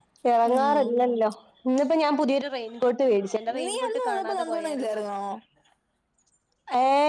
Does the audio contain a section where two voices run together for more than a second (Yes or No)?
Yes